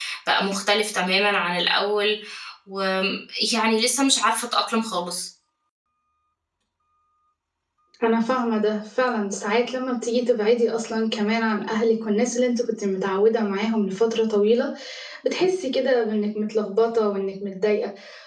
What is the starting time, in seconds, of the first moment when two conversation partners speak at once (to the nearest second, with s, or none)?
none